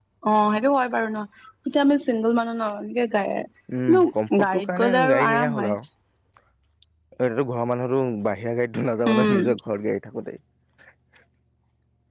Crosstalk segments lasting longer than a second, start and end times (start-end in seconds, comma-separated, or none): 4.4-5.7